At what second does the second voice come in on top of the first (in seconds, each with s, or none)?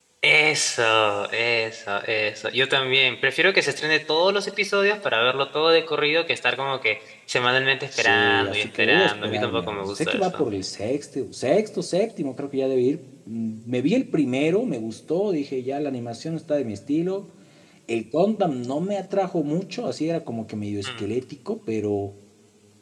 7.9 s